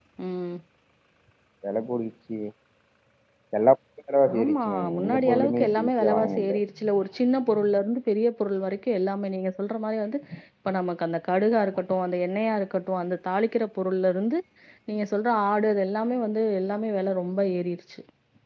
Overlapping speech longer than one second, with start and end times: 4.4-6.6

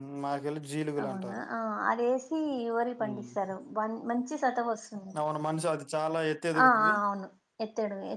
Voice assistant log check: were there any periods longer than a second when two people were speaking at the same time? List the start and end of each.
none

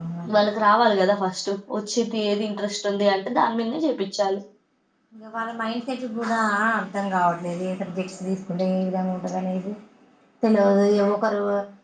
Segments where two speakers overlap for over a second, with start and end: none

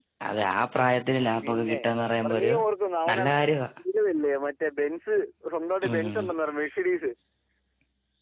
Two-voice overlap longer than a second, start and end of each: none

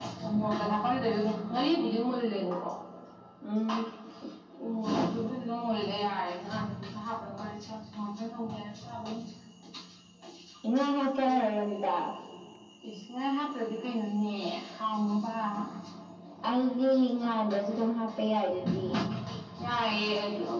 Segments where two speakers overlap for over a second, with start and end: none

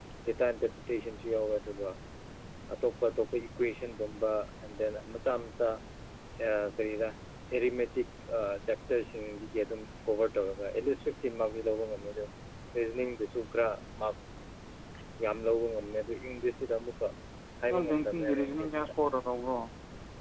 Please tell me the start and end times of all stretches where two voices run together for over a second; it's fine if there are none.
17.7-18.9

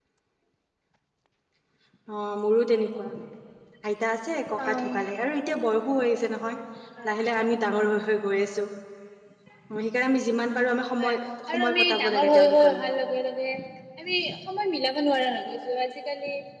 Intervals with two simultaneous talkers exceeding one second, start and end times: 11.5-13.0

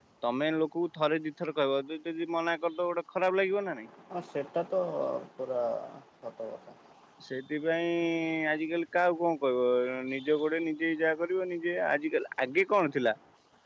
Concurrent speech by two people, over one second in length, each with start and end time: none

